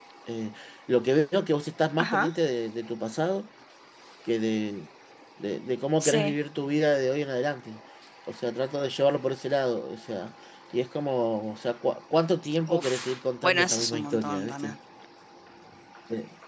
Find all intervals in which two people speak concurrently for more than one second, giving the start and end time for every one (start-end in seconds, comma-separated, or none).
12.7-14.7